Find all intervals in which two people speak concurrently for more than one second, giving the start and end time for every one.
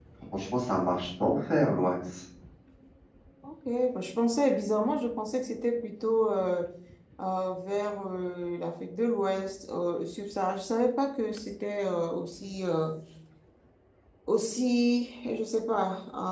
none

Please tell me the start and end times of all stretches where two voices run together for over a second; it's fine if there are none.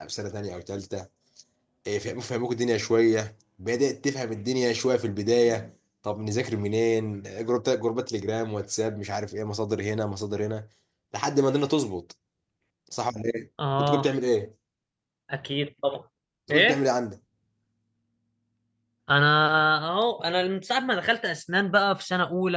none

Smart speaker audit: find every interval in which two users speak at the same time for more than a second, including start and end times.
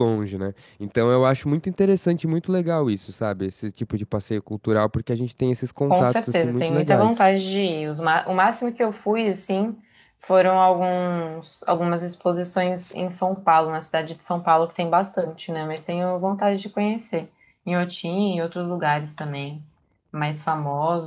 5.9-7.1

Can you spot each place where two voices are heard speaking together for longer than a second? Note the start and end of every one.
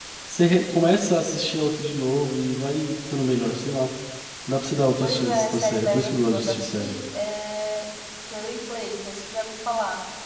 5.0-7.0

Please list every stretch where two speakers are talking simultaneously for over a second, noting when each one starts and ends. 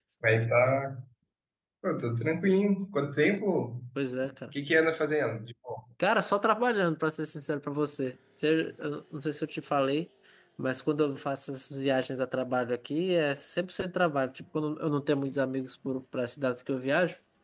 none

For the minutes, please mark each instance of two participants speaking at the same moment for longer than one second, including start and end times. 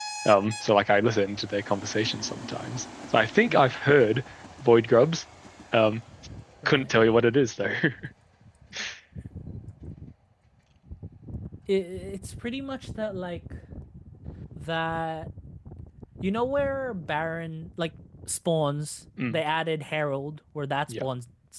none

